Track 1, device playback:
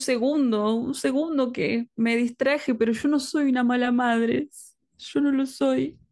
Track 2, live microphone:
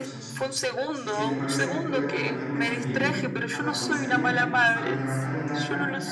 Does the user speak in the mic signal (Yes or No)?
Yes